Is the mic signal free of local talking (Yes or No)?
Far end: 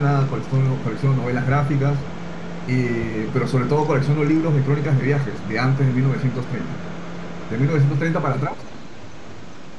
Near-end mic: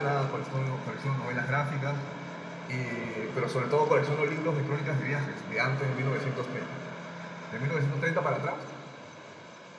Yes